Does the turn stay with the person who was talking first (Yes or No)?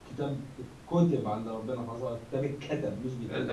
No